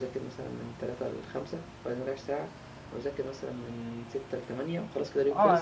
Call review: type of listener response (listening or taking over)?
taking over